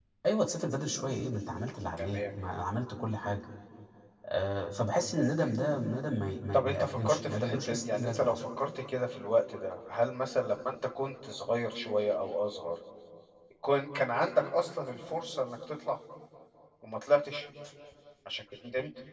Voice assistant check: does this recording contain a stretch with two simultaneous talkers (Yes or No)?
Yes